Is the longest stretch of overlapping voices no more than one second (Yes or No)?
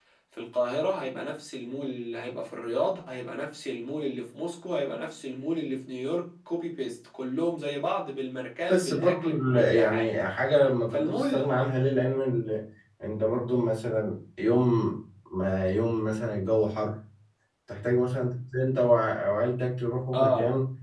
No